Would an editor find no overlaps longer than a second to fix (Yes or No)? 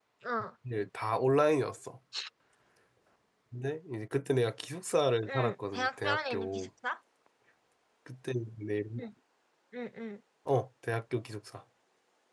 No